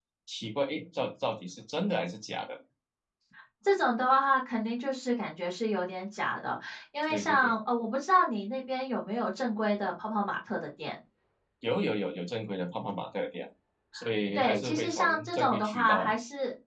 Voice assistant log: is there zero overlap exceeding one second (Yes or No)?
No